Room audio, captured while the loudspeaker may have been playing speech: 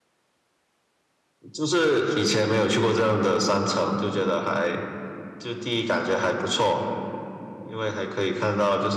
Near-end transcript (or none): none